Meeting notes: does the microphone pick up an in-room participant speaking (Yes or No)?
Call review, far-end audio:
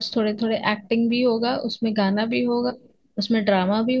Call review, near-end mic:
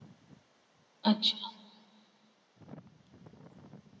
Yes